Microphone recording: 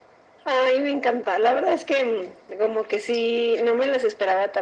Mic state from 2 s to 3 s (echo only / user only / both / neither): echo only